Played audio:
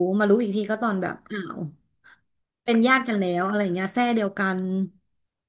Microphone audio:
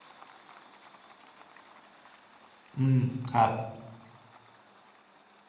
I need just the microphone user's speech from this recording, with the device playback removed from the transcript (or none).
อืมครับ